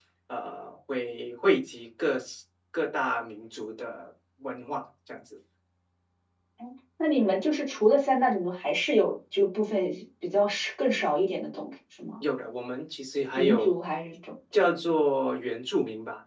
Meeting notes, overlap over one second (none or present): none